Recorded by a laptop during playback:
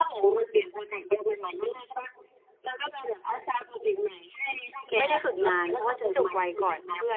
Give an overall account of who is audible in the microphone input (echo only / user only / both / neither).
both